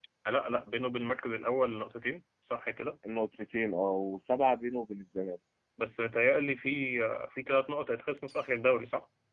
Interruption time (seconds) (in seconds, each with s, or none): none